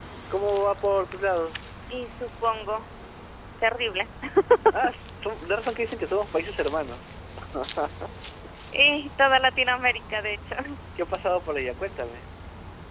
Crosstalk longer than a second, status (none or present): none